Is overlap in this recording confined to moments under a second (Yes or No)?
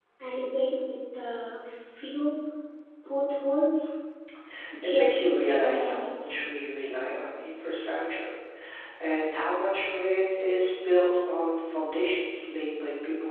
No